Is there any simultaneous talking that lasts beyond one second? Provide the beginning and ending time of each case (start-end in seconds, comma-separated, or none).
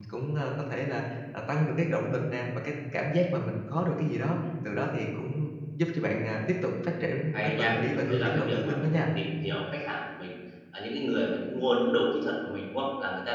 7.3-8.9